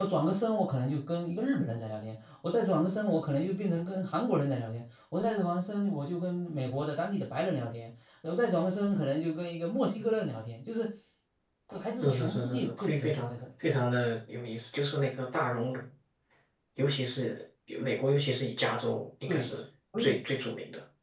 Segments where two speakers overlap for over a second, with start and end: 12.0-13.3

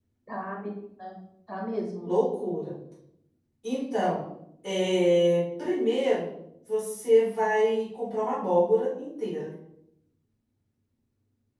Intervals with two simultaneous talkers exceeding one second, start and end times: none

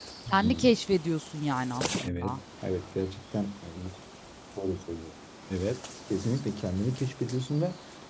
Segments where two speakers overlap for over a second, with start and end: none

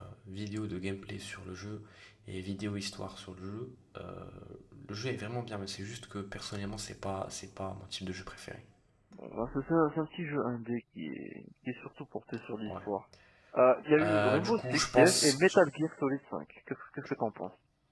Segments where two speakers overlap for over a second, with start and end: 14.0-15.3

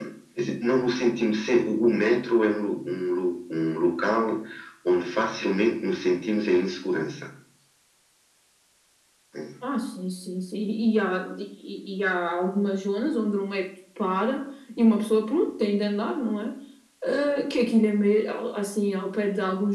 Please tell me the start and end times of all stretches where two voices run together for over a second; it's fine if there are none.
none

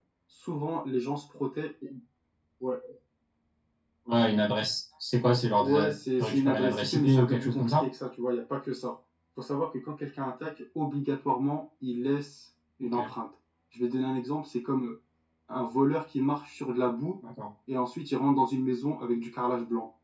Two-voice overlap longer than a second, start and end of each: 5.6-7.8

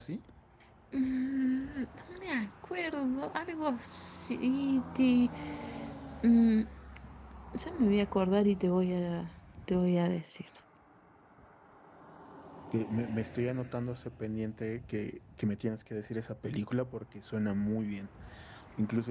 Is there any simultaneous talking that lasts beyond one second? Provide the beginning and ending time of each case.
none

